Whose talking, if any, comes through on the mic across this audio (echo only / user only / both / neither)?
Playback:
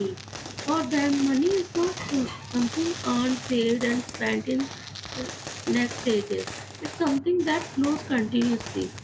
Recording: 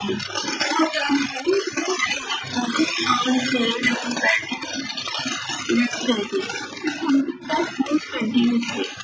echo only